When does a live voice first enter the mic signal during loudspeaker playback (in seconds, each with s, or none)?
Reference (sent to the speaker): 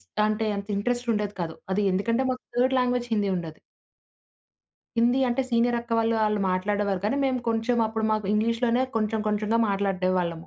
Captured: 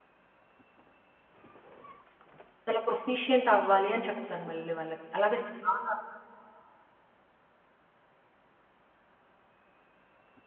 2.7 s